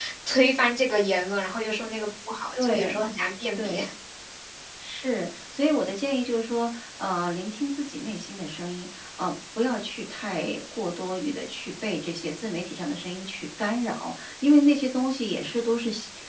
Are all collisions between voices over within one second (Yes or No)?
Yes